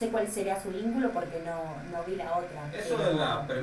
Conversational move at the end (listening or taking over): taking over